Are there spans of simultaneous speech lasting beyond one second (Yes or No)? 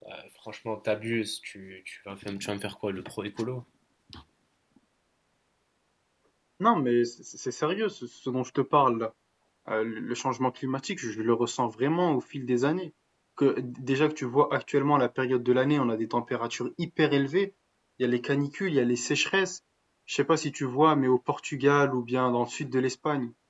No